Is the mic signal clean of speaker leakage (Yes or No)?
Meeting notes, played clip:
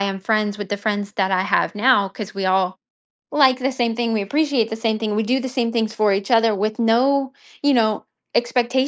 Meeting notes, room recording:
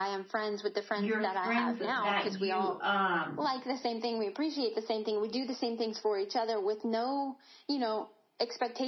No